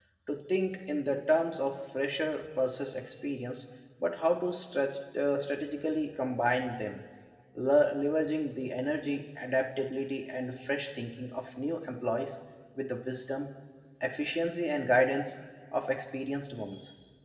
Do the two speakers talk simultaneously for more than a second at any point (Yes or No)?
No